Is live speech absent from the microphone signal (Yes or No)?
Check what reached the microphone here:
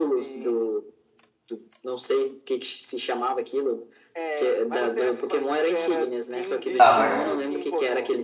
No